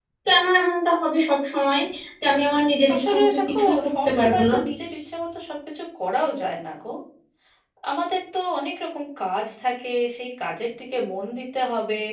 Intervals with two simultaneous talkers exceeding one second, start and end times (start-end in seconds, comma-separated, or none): 2.9-4.5